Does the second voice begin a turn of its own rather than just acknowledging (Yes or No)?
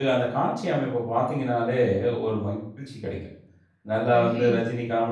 No